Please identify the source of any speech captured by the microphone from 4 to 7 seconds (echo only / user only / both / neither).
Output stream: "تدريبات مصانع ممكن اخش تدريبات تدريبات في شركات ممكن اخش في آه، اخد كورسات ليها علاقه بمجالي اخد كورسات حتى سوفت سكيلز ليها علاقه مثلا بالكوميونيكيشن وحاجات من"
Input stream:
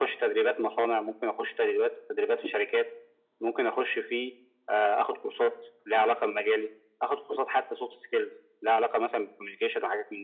echo only